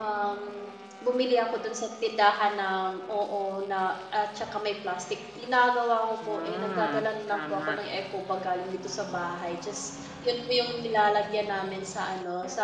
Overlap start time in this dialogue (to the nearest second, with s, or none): 6 s